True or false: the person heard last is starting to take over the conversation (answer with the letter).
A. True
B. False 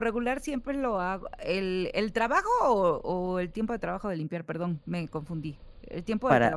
A